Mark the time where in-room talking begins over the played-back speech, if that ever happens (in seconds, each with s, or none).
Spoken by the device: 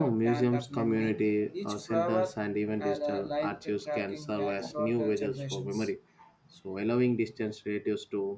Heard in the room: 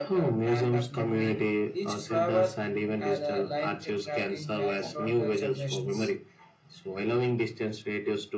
none